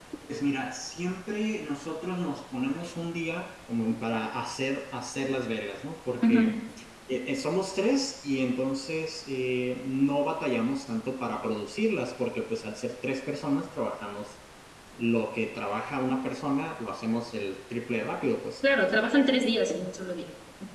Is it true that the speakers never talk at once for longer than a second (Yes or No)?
Yes